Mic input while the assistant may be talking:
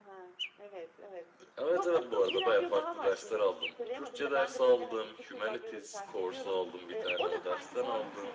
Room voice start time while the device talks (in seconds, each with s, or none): none